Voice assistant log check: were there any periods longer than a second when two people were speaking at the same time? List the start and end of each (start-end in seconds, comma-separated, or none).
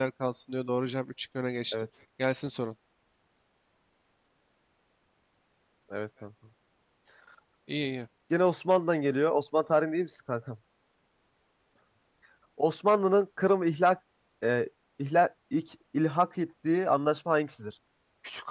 none